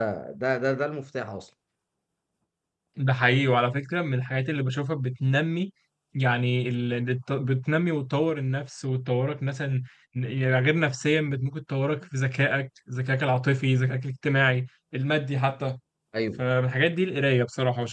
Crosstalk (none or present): none